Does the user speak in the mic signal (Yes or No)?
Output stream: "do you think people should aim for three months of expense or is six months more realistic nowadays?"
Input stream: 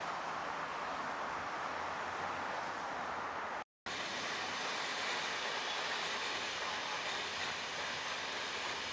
No